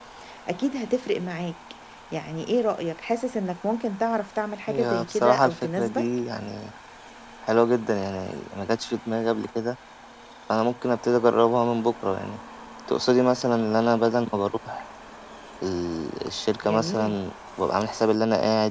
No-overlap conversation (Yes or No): No